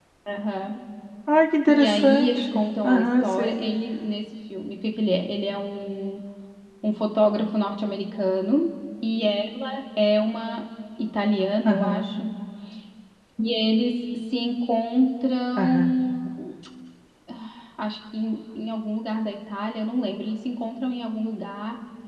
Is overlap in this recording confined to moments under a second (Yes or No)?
No